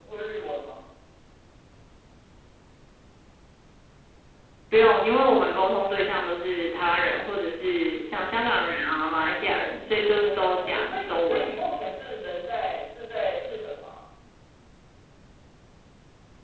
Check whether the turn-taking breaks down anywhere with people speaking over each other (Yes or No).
Yes